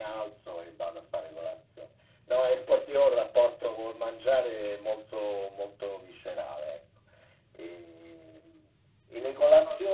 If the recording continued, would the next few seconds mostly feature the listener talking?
No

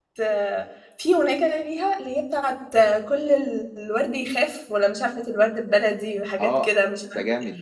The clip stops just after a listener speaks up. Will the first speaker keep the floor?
No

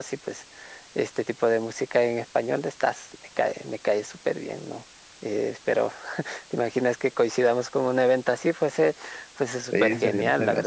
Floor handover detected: Yes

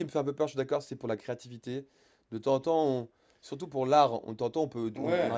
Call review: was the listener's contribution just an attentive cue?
Yes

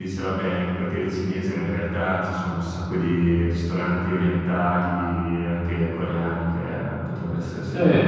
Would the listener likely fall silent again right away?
No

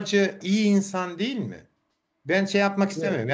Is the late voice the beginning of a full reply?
No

